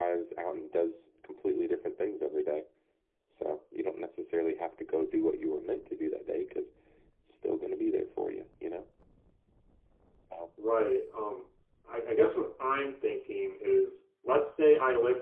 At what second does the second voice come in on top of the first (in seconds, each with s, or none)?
none